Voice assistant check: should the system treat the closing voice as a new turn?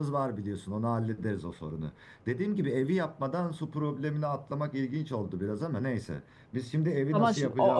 Yes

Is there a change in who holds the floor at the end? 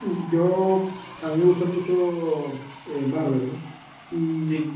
No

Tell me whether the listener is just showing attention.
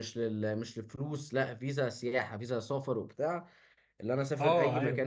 Yes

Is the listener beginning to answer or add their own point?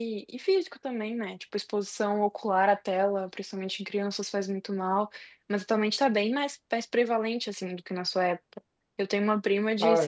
No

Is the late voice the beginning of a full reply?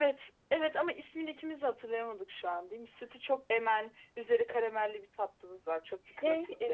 Yes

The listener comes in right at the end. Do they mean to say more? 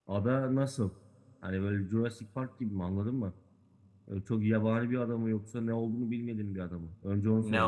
Yes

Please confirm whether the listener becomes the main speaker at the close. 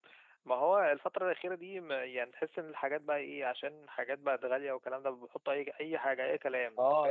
Yes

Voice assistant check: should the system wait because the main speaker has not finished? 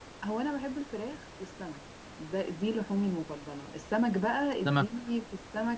Yes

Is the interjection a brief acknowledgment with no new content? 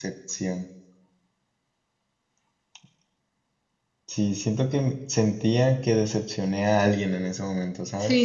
No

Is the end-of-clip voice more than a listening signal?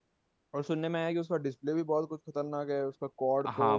Yes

